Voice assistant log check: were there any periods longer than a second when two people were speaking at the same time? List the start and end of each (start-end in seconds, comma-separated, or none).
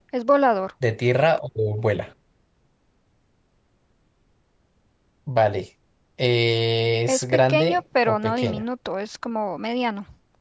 7.1-8.6